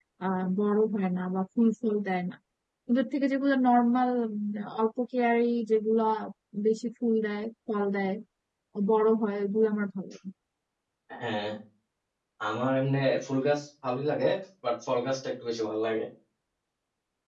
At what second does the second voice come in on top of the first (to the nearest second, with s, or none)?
none